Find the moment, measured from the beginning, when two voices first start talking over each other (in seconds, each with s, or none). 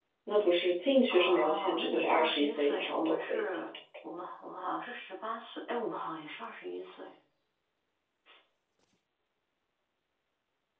1.1 s